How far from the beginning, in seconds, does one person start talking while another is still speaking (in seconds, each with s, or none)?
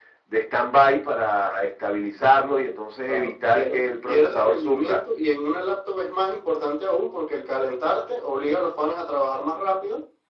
3.1 s